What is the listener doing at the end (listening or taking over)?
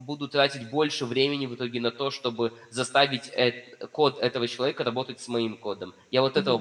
taking over